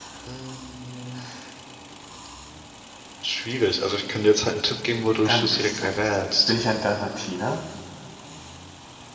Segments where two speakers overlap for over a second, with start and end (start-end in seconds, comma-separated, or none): 5.2-6.5